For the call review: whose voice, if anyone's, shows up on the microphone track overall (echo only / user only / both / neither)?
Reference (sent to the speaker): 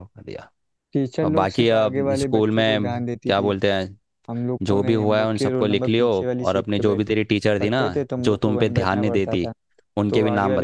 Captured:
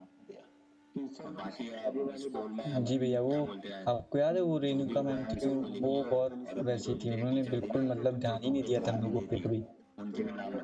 both